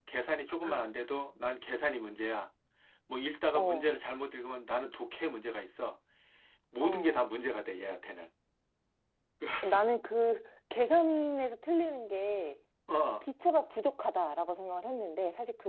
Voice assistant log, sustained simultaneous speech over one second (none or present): none